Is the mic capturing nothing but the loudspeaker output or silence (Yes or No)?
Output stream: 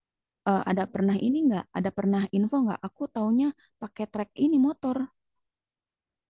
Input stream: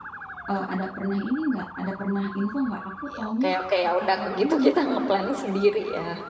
No